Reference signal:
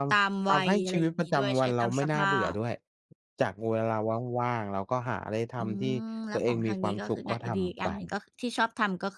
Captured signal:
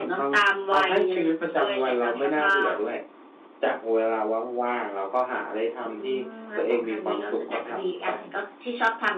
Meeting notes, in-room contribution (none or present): none